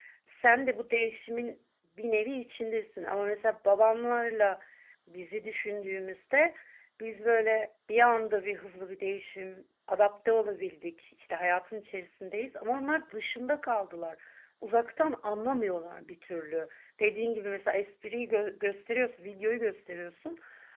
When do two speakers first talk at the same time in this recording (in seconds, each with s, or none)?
none